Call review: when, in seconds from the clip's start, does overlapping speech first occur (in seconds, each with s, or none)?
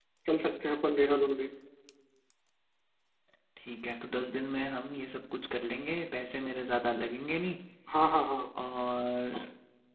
none